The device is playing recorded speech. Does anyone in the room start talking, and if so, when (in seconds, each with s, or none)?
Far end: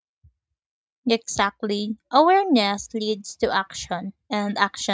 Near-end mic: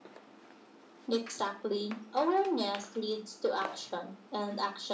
none